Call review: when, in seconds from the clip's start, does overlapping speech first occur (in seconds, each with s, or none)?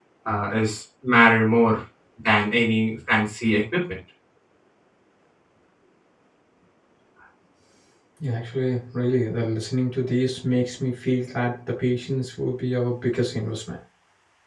none